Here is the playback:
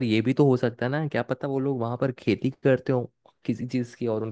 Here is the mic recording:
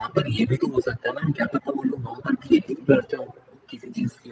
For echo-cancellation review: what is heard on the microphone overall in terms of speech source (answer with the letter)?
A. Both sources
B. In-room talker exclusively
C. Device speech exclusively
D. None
C